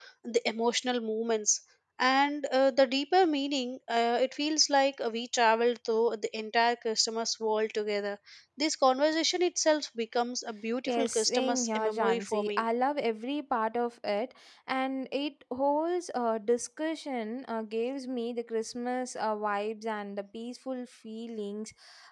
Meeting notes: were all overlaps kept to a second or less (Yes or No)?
No